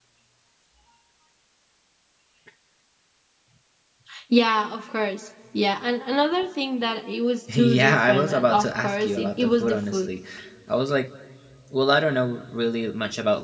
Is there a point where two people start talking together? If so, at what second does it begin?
7.5 s

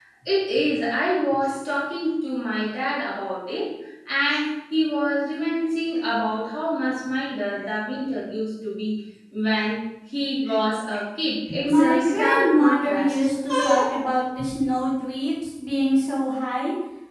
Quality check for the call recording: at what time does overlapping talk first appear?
11.6 s

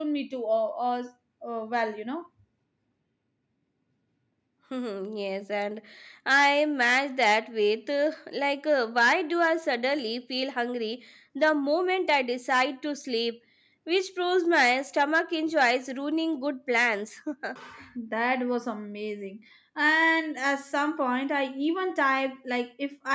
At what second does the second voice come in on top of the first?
none

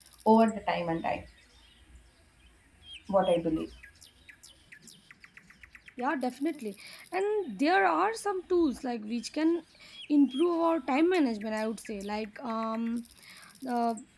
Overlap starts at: none

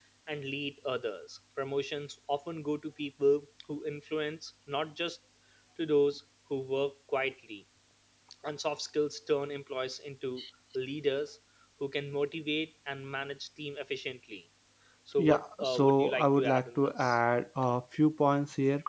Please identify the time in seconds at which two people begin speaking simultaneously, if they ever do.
15.2 s

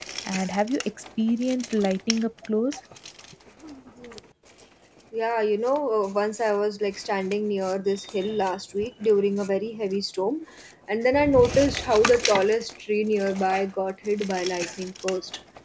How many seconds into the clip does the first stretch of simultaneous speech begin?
none

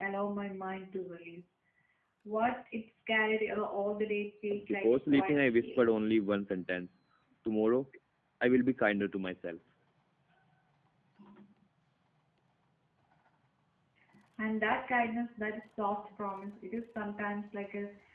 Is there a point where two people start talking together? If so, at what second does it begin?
4.5 s

